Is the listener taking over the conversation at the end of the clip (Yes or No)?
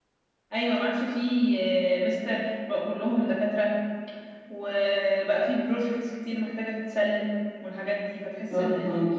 Yes